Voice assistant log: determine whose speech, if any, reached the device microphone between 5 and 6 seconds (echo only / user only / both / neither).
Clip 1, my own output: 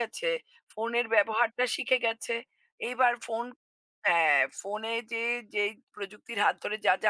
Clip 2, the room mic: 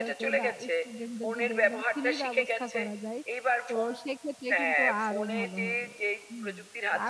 both